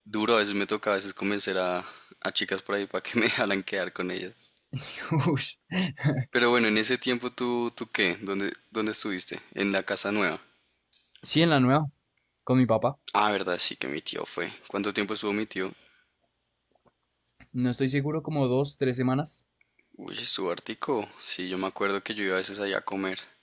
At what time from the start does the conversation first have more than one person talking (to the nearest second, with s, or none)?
none